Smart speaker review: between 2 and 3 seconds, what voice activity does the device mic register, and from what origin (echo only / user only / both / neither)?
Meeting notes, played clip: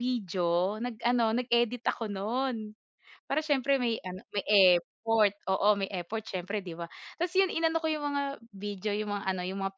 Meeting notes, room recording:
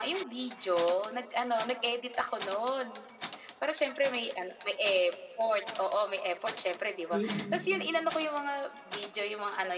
echo only